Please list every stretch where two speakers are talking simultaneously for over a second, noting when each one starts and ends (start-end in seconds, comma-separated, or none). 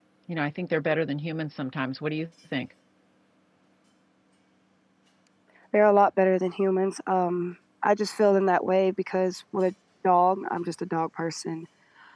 none